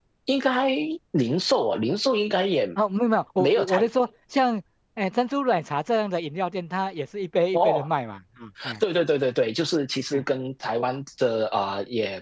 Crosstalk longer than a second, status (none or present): none